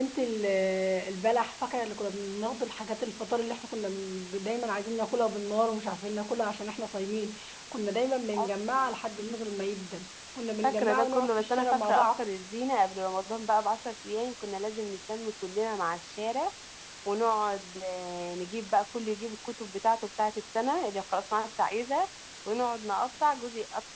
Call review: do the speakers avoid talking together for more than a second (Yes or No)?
No